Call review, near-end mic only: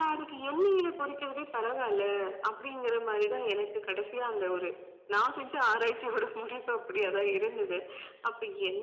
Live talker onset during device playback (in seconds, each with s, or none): none